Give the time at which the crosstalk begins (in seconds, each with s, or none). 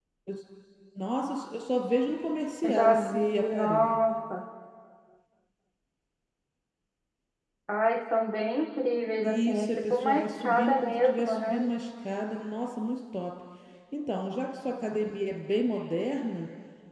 2.7 s